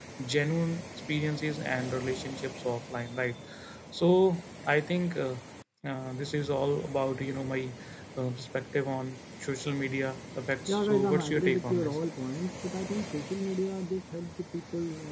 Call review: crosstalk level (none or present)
present